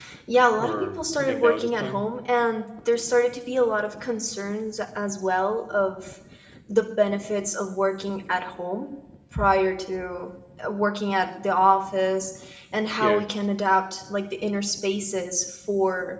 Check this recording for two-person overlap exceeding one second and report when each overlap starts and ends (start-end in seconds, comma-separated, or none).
0.6-2.0